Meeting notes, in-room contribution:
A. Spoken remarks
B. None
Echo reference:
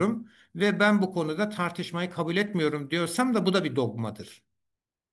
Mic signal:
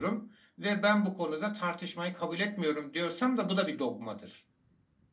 B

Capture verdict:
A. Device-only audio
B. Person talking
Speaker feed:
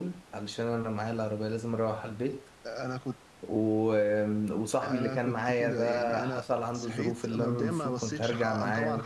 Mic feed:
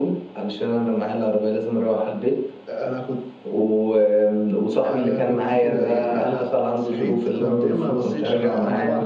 A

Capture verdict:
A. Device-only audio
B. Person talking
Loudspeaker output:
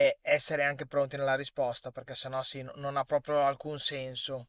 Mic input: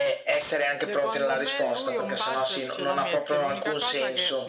B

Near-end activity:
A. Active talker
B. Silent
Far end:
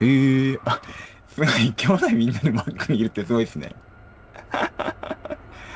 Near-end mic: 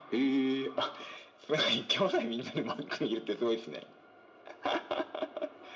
B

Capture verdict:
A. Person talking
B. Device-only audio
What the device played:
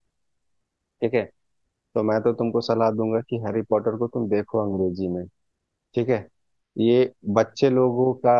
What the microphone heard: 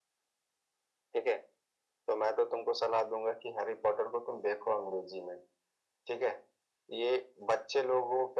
B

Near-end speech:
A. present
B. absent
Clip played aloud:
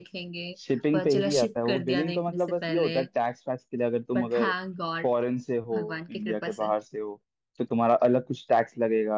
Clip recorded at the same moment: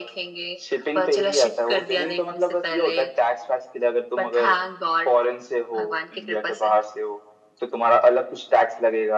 B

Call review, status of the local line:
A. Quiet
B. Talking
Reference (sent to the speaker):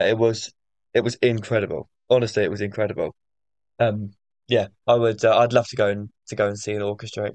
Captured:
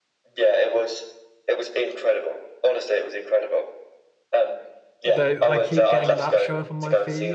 B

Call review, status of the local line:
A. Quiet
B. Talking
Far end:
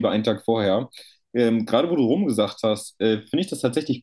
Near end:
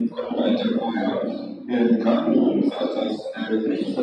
A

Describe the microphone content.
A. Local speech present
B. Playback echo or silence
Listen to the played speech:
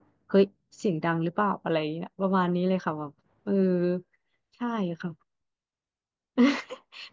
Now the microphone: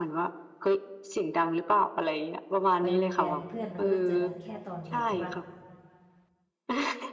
A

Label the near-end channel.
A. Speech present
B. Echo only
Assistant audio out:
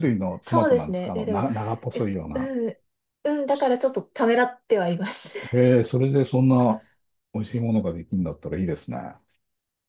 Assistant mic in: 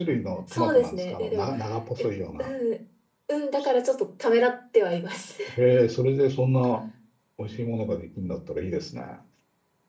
B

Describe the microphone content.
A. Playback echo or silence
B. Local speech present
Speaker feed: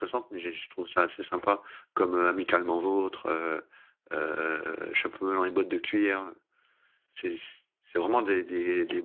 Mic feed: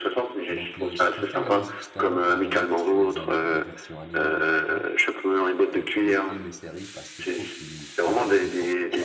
B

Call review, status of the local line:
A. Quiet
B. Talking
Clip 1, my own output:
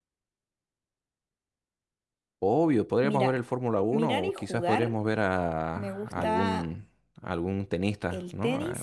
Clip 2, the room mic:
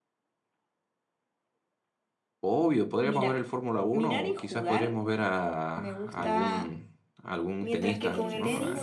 B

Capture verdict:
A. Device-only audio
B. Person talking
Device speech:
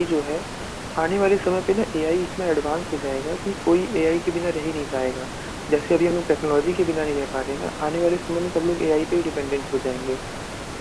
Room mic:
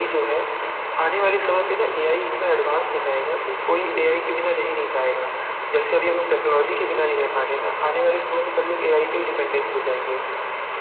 A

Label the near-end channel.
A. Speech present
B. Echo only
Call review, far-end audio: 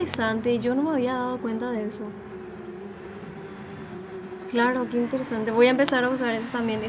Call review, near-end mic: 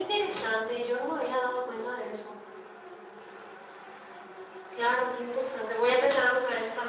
B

